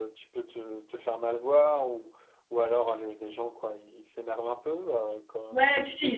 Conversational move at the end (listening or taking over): taking over